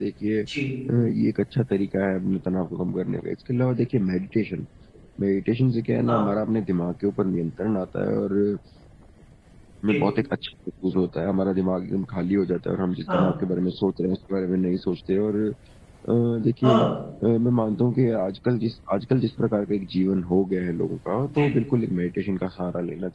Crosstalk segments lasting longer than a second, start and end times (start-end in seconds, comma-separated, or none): none